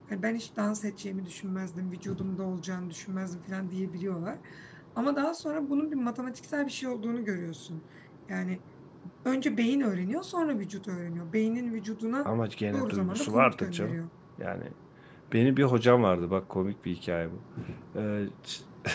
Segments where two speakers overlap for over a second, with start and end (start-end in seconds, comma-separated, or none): 12.7-14.0